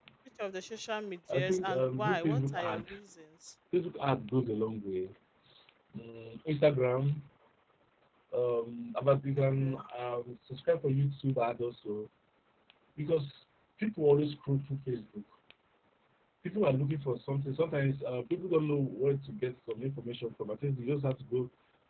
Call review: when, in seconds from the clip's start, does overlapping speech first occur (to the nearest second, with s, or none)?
1 s